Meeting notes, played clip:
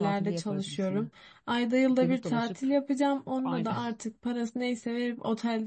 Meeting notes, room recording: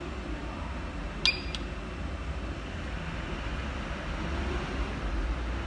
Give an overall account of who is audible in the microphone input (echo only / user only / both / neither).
neither